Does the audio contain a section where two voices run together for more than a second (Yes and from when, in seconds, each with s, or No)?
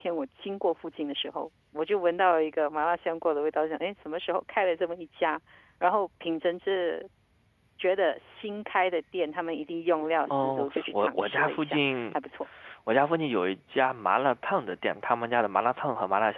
Yes, from 10.3 s